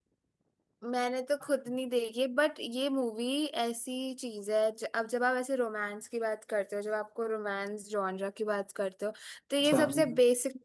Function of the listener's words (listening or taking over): listening